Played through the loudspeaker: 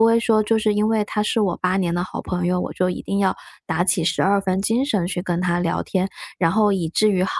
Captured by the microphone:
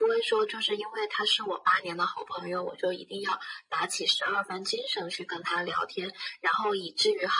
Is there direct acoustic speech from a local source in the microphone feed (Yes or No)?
No